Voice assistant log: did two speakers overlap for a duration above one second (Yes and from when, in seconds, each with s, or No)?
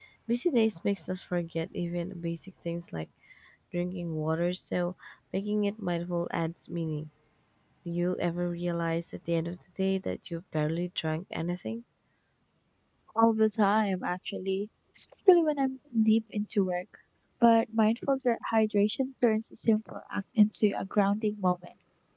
No